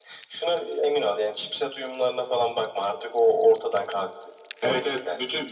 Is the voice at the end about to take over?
Yes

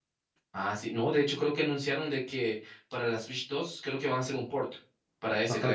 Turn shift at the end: Yes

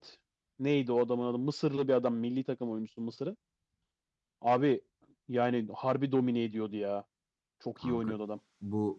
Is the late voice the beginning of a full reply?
Yes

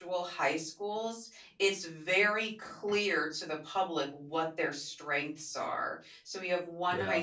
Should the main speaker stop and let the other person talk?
No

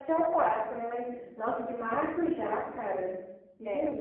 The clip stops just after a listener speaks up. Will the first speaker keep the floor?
No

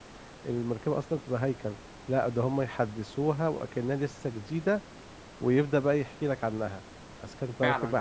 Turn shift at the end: No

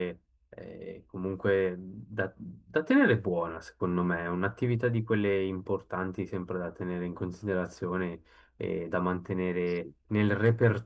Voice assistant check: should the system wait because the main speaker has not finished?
Yes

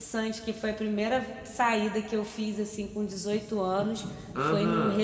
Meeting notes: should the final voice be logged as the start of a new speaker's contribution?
No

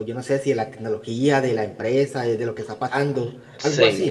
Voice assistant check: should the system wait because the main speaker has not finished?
No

